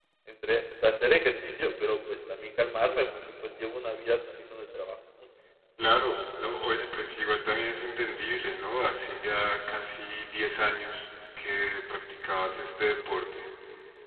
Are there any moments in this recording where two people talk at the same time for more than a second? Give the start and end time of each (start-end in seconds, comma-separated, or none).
none